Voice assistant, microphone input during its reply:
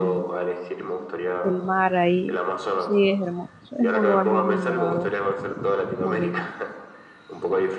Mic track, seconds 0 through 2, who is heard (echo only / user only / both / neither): both